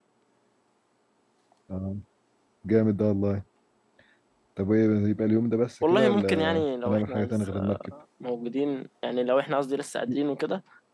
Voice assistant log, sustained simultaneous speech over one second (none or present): present